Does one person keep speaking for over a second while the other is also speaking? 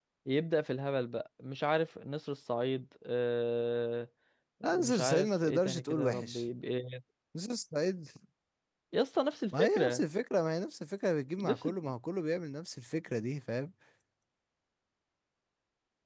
Yes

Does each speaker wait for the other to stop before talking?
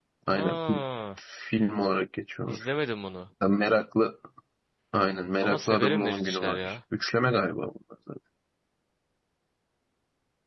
No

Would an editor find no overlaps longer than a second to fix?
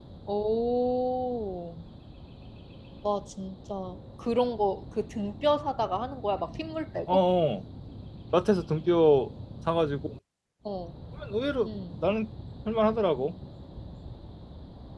Yes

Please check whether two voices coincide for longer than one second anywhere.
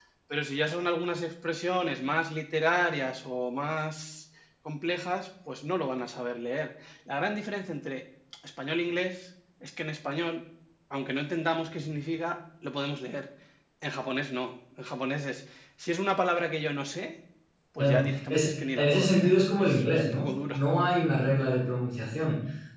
Yes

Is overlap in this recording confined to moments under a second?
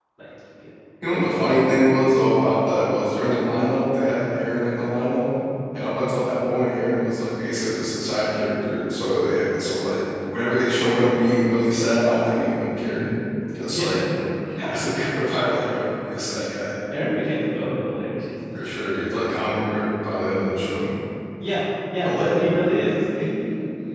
Yes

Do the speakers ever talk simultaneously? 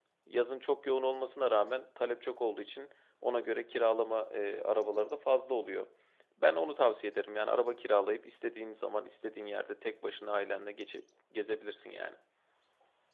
No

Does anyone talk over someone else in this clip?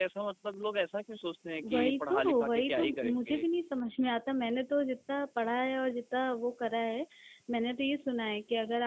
Yes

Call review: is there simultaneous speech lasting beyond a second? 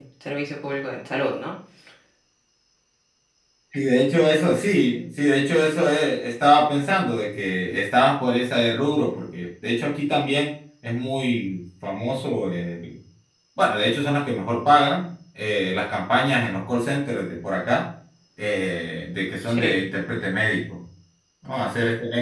No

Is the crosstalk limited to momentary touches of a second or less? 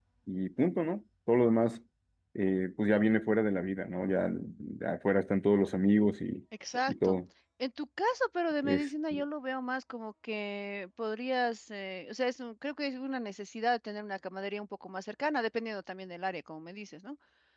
Yes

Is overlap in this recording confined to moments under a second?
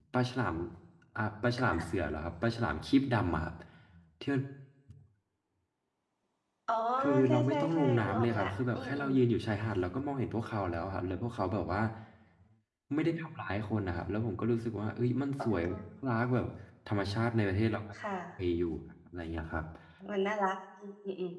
No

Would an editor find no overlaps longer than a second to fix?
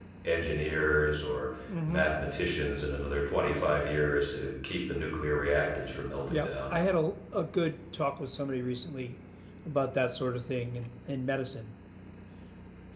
Yes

